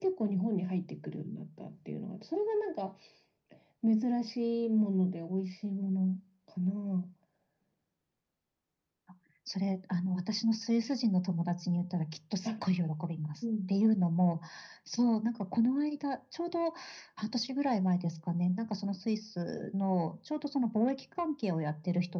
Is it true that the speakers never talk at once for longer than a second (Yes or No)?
Yes